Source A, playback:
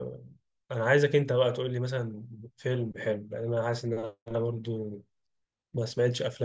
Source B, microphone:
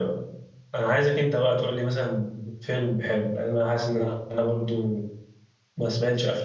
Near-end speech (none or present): none